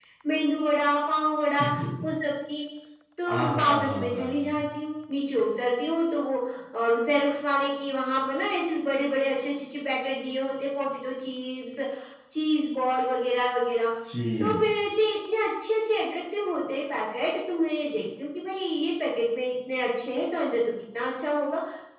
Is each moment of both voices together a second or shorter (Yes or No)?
No